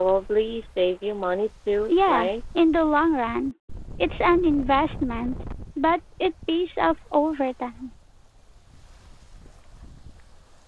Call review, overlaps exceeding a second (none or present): none